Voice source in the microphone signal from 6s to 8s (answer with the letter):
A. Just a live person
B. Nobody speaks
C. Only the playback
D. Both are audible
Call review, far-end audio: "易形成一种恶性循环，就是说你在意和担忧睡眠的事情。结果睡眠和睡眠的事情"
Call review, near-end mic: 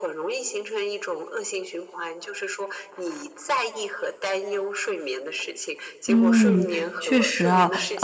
D